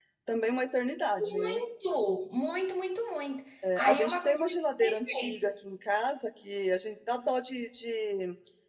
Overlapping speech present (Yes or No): Yes